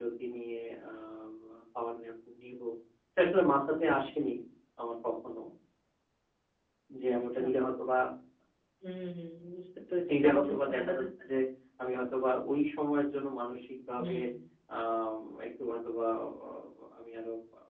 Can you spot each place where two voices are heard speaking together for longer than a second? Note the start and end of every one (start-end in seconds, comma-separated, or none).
10.1-11.3